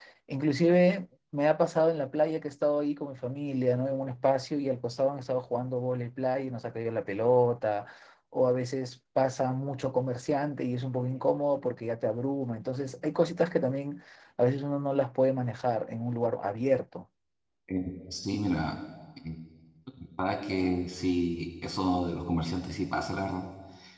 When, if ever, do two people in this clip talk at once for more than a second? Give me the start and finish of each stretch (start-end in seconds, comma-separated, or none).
none